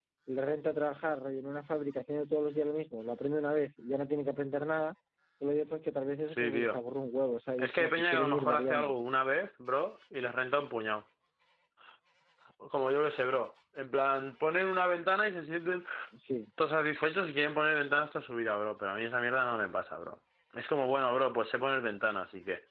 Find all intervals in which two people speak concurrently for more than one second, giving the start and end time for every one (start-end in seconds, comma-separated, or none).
7.6-8.9